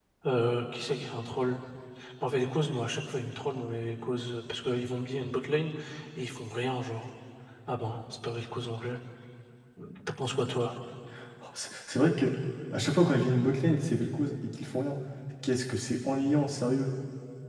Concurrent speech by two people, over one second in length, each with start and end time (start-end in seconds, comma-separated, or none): none